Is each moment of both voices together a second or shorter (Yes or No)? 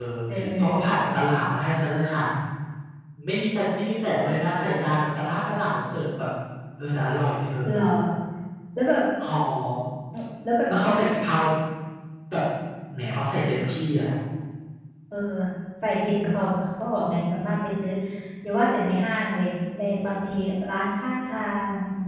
Yes